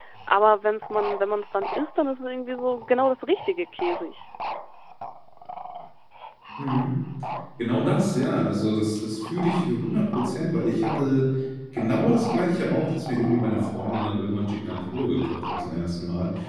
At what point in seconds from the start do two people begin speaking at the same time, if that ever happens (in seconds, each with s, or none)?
none